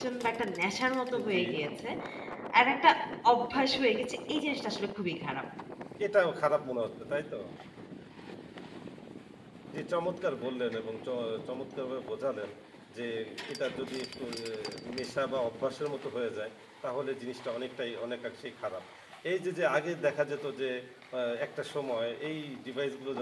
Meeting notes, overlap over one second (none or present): none